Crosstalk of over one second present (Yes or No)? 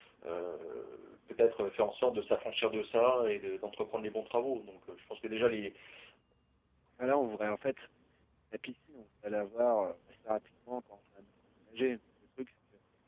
No